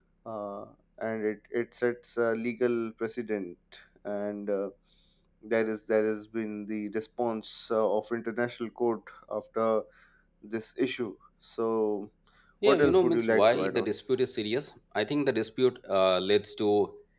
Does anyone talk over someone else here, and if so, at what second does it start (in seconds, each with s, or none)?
12.6 s